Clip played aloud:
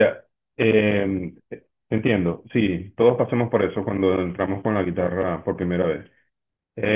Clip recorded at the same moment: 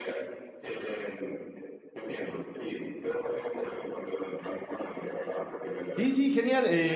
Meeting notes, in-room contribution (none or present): present